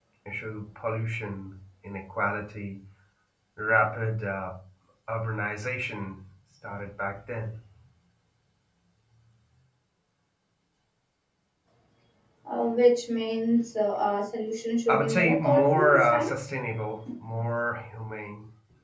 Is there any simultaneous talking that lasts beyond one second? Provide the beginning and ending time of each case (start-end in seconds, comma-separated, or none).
14.9-16.4